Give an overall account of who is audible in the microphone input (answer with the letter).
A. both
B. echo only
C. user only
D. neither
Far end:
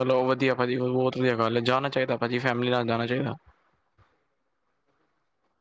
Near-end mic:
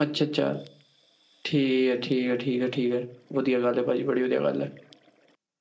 C